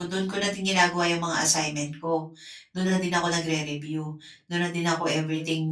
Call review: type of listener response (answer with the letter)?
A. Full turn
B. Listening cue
A